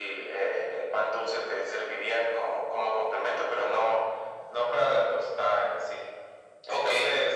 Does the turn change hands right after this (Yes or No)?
Yes